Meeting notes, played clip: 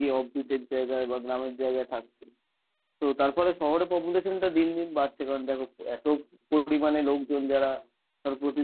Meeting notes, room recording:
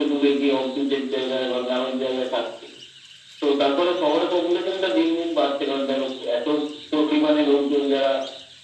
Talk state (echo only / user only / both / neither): echo only